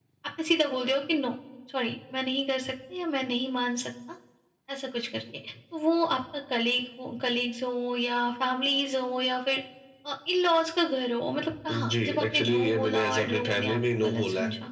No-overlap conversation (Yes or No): No